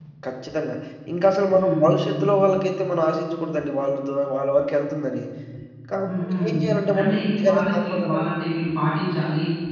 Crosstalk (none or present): present